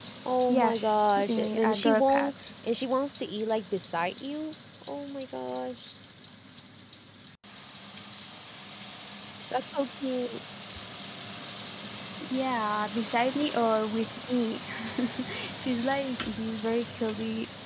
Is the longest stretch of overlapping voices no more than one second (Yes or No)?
No